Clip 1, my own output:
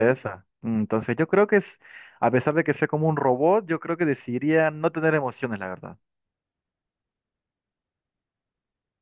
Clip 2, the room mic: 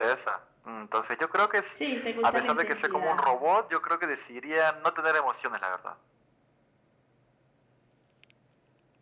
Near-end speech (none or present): present